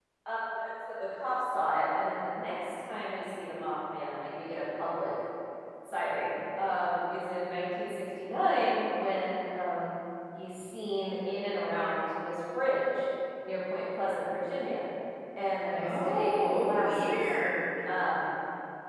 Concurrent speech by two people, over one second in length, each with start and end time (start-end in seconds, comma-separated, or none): 15.8-17.2